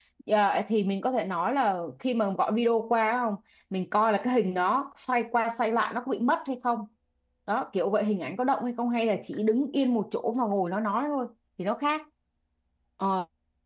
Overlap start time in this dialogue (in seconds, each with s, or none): none